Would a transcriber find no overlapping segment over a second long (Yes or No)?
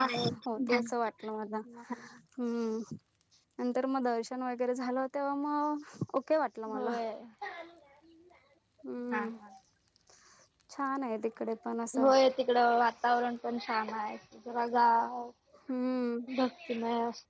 Yes